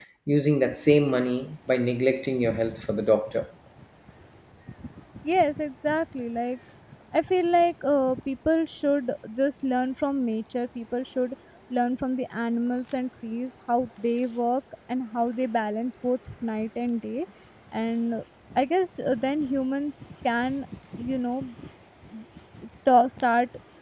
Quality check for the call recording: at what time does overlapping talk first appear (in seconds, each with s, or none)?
none